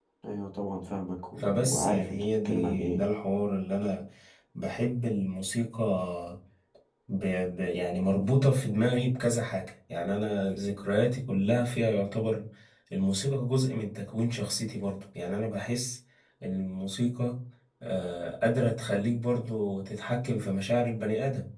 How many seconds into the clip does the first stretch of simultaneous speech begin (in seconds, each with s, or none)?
1.4 s